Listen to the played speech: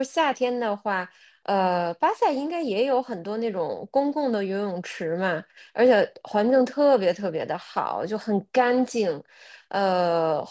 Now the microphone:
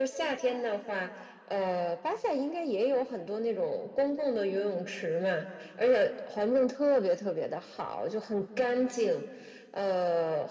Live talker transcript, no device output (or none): none